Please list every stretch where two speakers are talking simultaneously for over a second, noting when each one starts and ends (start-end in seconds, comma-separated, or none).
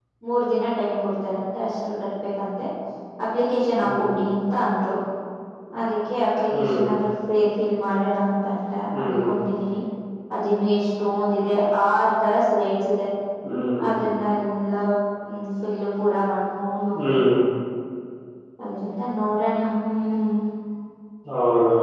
none